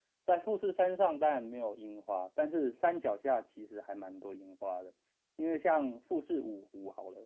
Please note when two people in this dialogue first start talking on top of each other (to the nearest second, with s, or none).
none